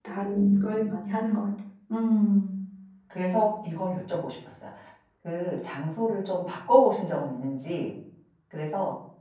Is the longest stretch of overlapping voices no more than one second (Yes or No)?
Yes